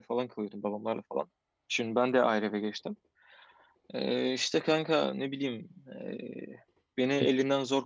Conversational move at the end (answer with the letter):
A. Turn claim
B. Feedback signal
B